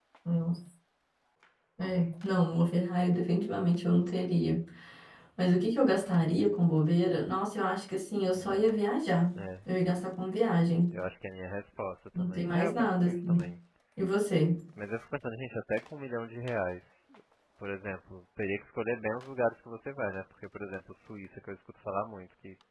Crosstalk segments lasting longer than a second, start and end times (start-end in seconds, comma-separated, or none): 12.2-13.5